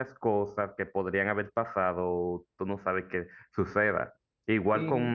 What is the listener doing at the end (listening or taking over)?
listening